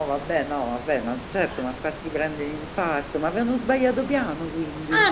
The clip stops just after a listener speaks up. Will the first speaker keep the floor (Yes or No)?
No